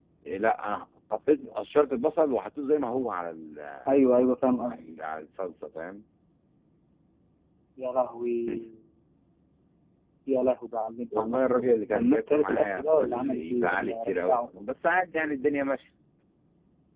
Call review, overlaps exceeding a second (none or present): present